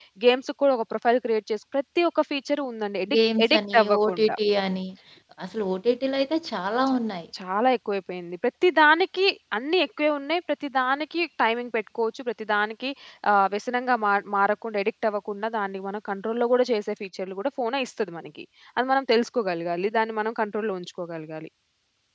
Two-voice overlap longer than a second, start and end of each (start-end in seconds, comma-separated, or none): 3.1-4.3